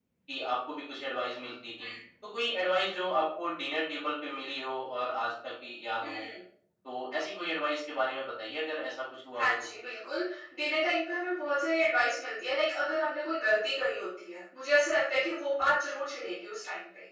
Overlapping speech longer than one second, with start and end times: none

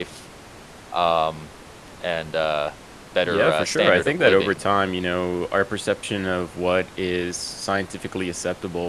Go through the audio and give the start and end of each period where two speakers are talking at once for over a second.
3.2-4.6

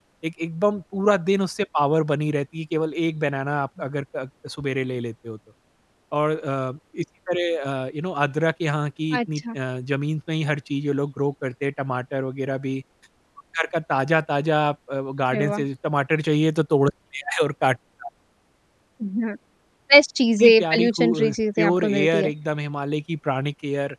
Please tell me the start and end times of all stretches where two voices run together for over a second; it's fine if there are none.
20.4-22.3

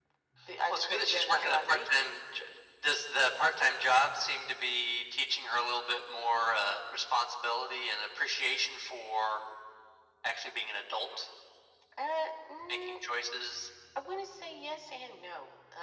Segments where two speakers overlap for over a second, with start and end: 0.7-1.9

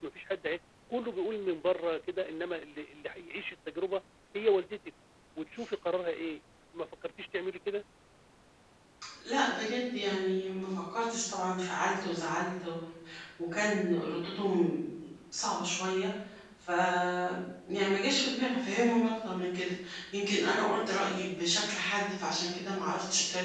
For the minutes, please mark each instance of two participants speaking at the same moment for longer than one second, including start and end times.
none

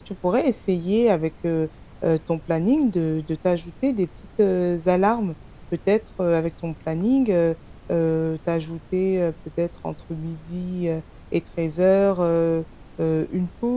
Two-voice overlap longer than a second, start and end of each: none

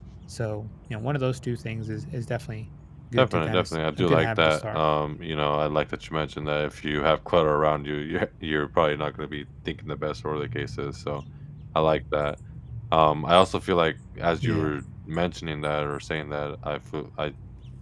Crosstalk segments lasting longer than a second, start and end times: 3.2-4.8

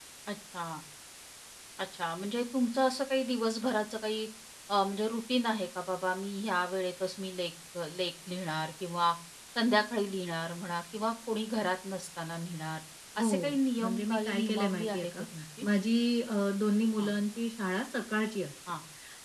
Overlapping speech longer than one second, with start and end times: 13.2-15.1

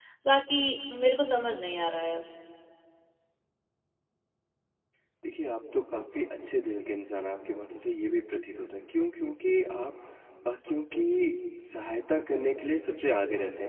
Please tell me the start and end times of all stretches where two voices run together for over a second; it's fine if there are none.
none

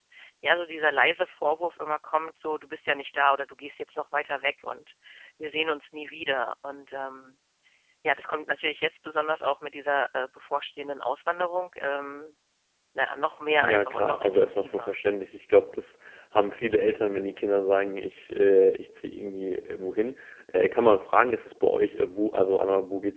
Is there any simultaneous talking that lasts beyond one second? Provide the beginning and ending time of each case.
13.6-14.9

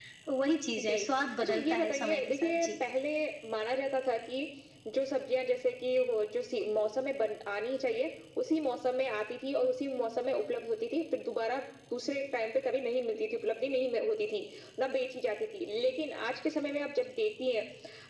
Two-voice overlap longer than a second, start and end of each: 1.4-2.7

